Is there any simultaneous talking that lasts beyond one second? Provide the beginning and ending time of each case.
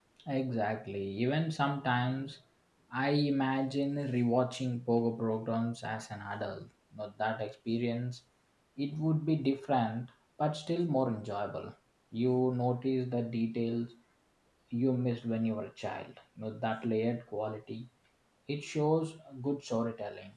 none

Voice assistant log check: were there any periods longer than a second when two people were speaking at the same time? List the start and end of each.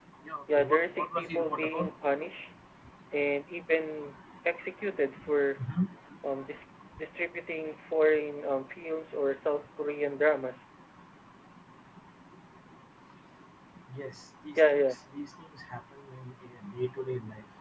0.6-1.9

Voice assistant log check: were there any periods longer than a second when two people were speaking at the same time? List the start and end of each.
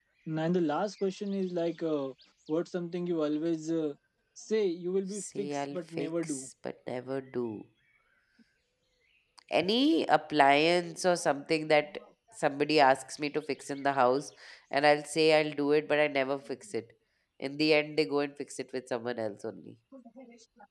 5.1-6.5

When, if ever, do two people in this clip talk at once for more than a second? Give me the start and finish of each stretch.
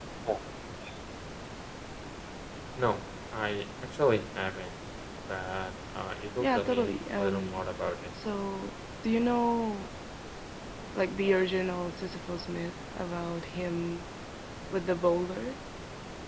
6.4-7.6

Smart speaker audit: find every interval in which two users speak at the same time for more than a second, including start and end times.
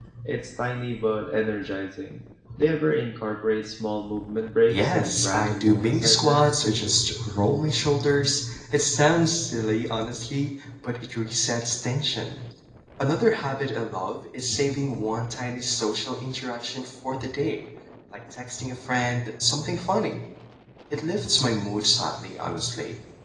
4.7-6.4

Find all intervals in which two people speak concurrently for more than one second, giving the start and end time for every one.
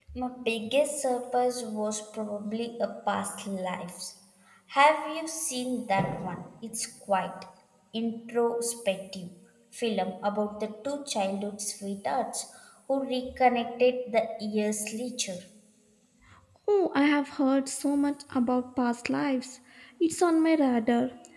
none

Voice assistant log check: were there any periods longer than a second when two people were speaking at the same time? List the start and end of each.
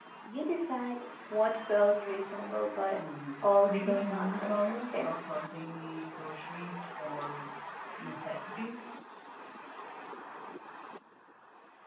3.4-5.0

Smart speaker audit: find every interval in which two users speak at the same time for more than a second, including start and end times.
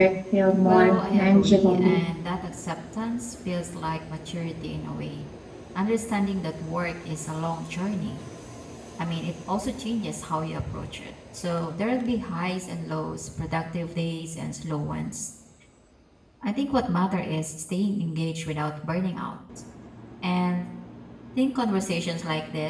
0.7-2.0

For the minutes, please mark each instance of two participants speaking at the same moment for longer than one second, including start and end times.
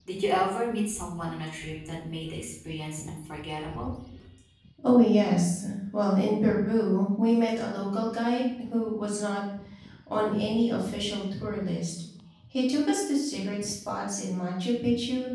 none

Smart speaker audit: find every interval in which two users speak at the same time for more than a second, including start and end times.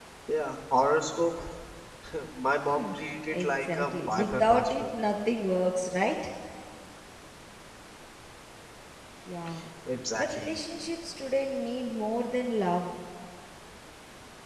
3.3-4.8

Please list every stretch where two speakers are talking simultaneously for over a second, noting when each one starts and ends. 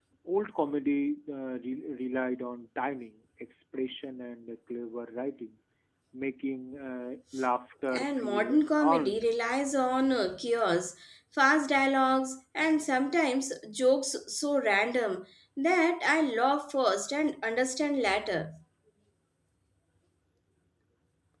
7.9-9.3

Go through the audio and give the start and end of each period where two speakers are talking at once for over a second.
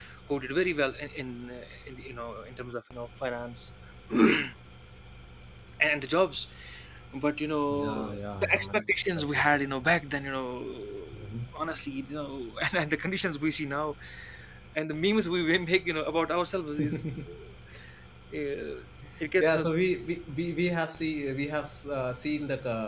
7.7-9.6

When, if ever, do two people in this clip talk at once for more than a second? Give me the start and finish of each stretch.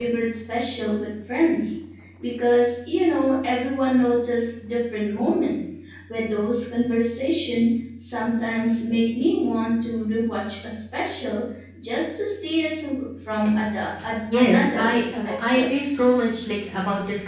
14.4-15.7

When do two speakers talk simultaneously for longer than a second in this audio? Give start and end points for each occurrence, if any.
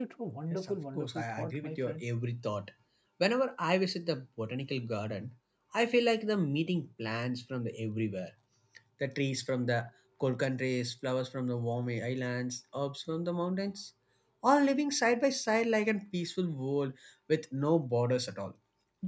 0.5-2.0

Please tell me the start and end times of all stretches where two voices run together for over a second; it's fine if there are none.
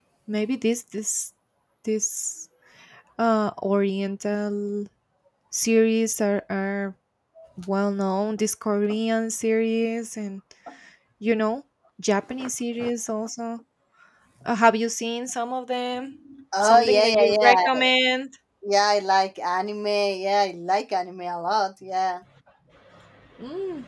16.6-17.9

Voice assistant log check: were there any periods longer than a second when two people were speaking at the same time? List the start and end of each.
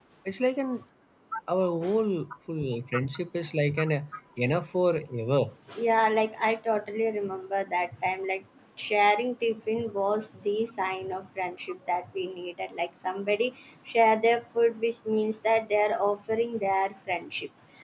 none

